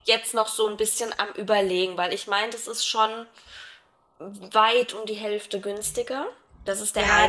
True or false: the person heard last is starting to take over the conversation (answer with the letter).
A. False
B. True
B